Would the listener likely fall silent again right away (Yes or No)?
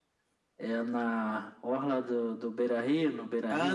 No